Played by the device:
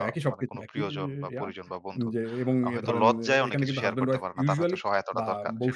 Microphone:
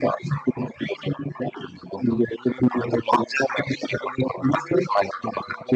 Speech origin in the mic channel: echo only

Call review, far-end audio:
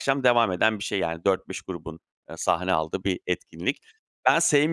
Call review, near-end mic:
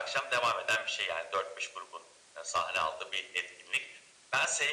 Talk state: echo only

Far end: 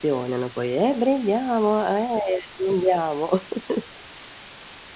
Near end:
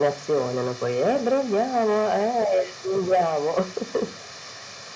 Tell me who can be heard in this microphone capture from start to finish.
echo only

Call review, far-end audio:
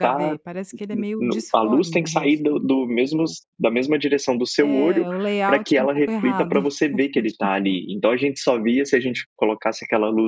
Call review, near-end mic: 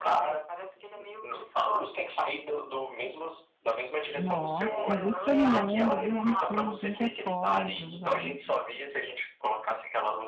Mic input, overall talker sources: both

